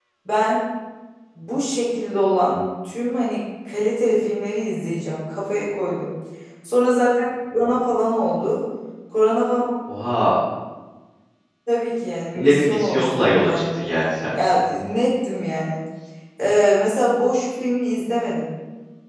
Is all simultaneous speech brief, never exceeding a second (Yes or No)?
No